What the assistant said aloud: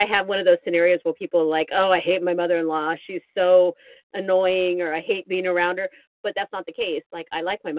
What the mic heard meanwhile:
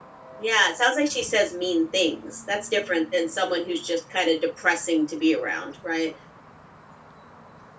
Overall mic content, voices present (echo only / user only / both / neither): user only